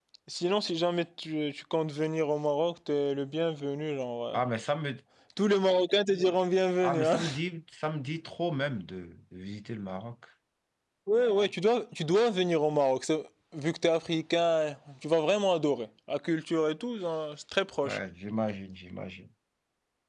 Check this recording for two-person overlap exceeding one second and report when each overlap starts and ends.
none

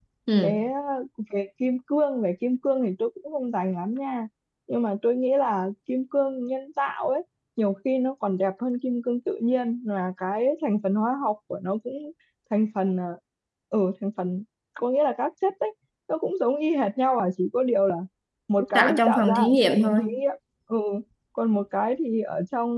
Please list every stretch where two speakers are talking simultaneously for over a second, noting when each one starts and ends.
18.7-20.0

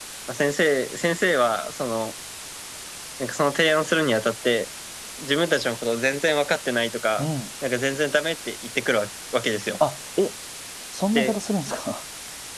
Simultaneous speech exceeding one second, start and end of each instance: none

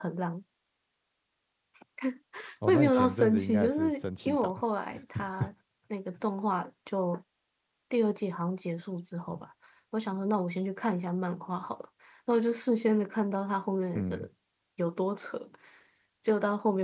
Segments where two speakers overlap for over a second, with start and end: 2.7-4.5

